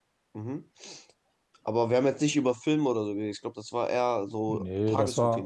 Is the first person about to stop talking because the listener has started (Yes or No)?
Yes